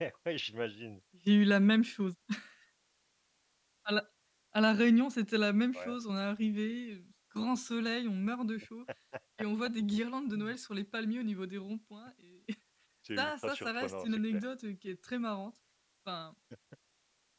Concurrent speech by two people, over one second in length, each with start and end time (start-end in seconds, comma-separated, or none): 13.2-14.4